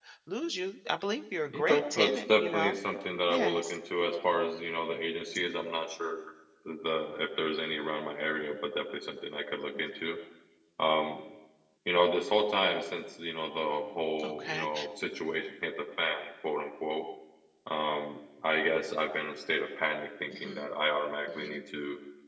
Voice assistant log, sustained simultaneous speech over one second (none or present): present